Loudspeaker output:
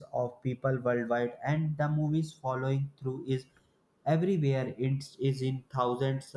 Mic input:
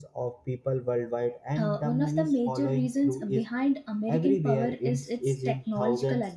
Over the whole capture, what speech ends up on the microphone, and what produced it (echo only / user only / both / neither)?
both